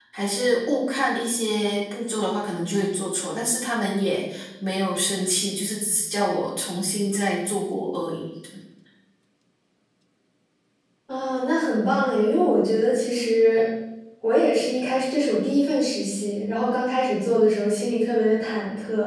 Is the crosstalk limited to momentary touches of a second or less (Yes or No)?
Yes